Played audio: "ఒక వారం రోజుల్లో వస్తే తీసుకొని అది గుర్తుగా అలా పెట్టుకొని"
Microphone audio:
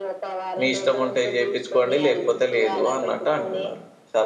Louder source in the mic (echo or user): user